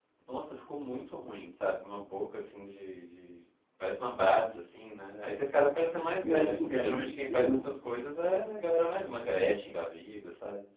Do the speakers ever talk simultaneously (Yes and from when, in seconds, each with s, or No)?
Yes, from 6.2 s